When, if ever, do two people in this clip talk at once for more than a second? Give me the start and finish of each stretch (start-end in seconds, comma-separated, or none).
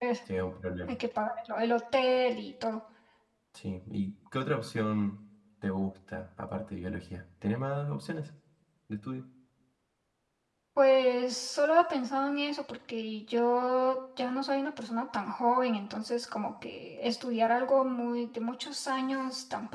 none